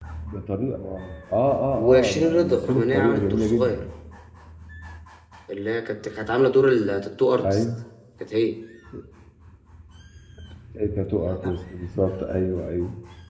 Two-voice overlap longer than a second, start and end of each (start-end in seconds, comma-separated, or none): 1.8-3.8